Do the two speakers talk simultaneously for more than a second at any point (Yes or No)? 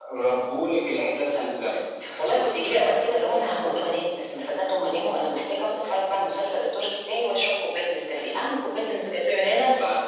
No